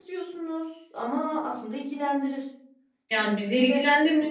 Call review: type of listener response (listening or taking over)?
taking over